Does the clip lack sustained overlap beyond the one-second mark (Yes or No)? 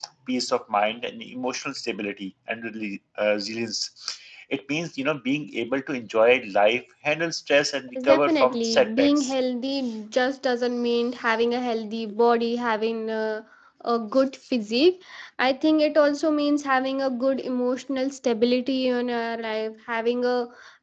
No